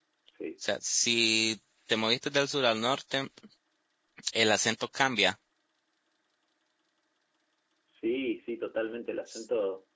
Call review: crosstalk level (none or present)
none